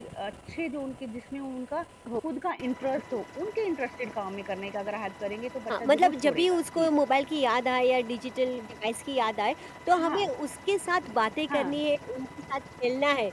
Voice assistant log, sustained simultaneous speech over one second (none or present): present